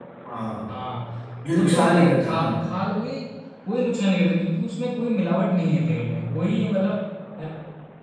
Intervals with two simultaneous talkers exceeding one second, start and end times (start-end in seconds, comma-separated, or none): 1.4-2.7